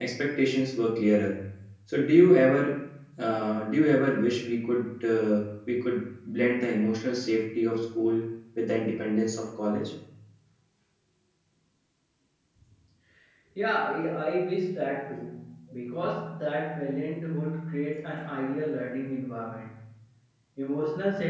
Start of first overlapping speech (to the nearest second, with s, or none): none